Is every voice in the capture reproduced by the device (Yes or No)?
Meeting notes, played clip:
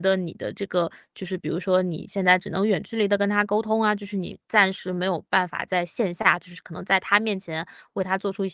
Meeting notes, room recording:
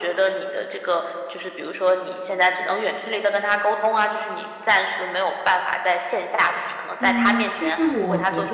No